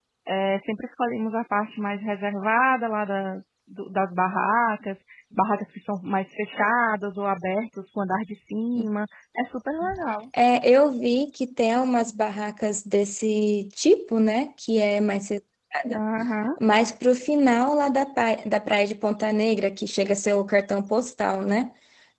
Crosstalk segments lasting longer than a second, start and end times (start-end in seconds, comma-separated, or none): none